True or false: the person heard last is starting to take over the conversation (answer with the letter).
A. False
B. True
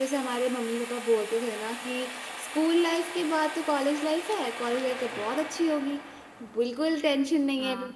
A